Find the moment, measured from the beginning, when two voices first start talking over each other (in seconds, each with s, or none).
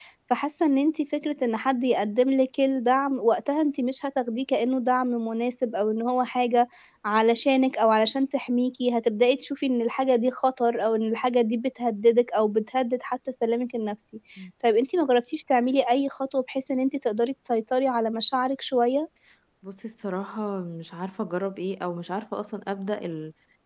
none